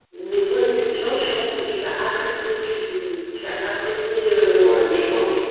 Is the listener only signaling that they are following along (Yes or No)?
No